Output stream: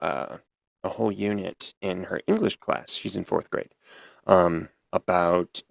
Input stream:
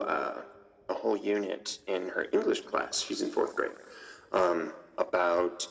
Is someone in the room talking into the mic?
No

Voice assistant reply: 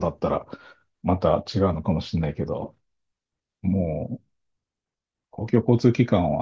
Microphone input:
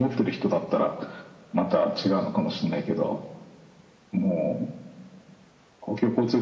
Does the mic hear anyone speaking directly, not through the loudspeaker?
No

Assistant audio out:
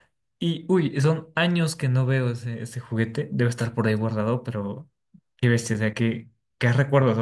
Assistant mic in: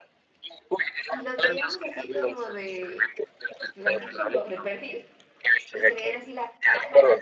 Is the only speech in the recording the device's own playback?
No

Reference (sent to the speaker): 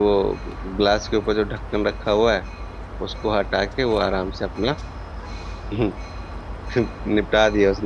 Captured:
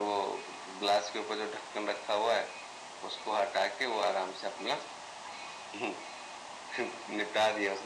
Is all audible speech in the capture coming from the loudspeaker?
Yes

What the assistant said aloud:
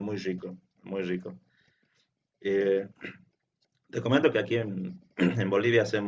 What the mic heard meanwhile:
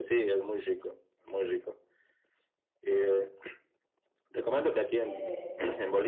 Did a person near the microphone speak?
Yes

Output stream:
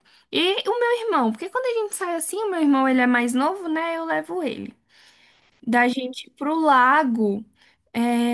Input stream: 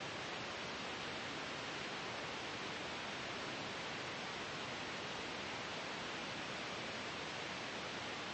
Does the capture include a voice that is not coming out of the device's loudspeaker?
No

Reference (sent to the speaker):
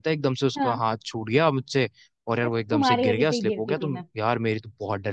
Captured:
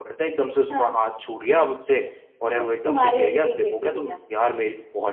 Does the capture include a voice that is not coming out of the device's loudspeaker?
No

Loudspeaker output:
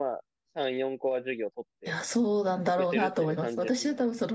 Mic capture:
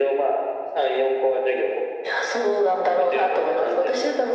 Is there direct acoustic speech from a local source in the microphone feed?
No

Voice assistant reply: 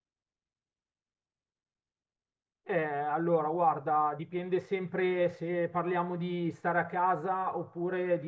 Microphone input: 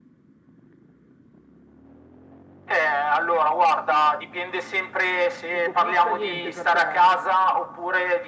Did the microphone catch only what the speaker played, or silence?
No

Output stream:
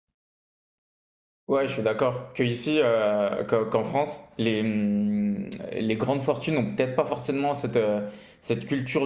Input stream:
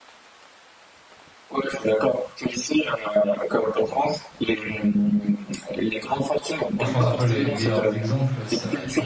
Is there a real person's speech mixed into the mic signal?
Yes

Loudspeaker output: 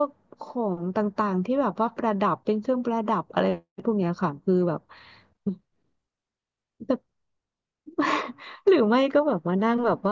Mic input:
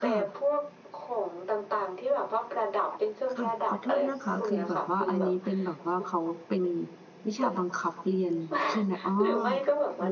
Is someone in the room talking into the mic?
Yes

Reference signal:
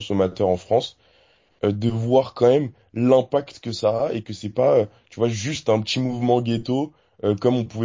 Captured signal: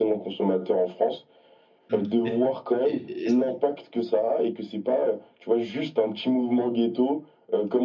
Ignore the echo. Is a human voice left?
Yes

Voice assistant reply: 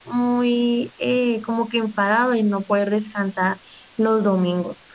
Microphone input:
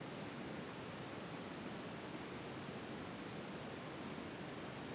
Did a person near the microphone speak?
No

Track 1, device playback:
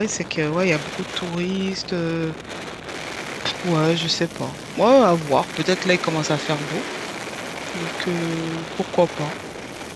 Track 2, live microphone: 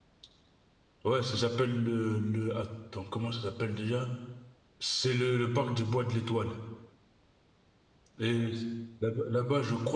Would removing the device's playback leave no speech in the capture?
No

